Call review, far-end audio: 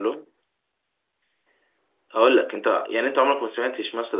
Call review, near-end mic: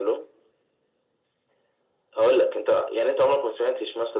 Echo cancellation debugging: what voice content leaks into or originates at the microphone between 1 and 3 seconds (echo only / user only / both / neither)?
echo only